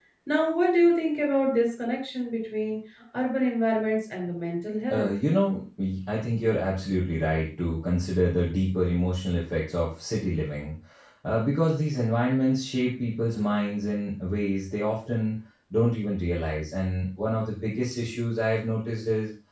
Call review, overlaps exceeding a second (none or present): none